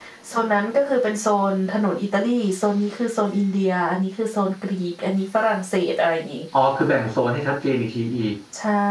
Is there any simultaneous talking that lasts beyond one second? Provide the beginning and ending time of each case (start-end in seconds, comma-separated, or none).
none